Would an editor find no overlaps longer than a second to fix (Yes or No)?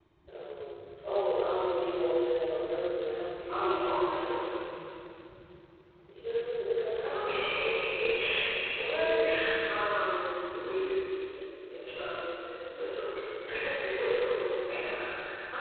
Yes